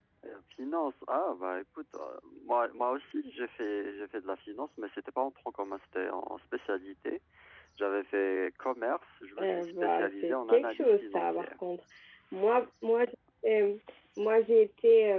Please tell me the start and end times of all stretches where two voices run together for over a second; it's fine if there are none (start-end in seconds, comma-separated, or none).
9.4-11.5